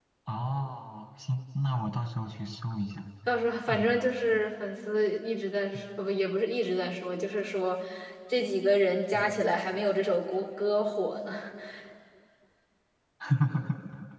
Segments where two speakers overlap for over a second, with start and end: none

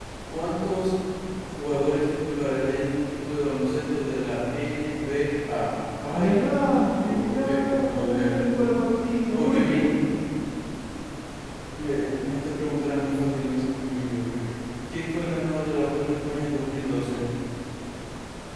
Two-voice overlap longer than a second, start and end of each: 6.1-8.3

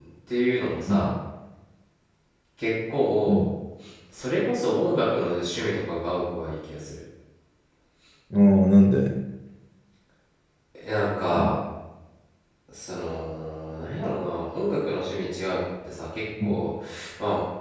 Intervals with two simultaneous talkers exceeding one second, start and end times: none

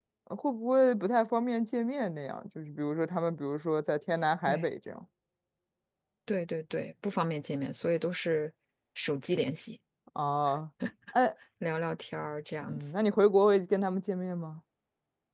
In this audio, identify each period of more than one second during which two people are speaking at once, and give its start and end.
none

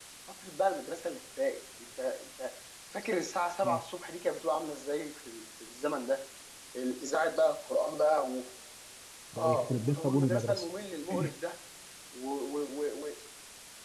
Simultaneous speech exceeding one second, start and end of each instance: 9.4-10.7

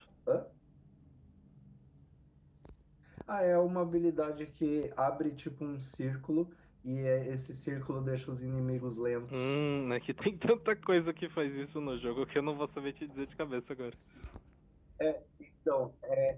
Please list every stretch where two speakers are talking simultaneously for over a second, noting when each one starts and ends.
none

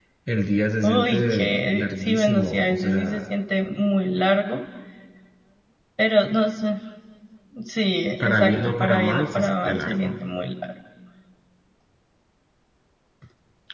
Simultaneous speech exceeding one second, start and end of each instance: 0.8-3.2, 8.2-10.2

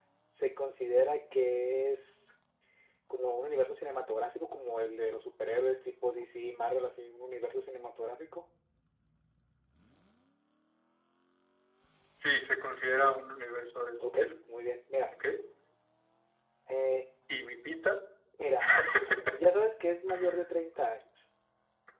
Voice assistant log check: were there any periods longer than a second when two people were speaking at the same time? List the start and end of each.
none

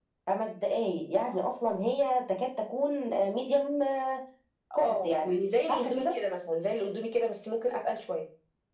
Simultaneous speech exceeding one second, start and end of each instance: 4.8-6.2

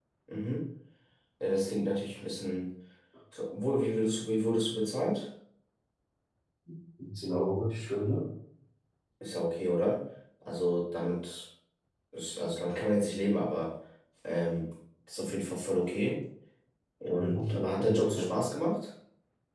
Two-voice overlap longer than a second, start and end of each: 17.1-18.4

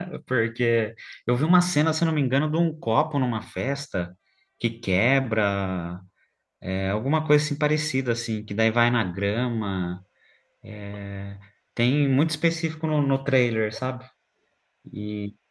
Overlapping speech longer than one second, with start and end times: none

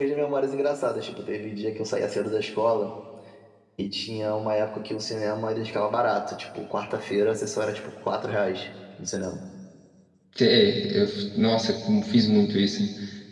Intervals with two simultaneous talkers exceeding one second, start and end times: none

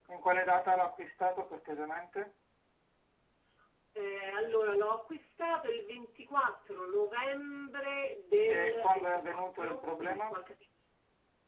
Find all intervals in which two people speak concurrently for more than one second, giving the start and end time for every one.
8.4-10.3

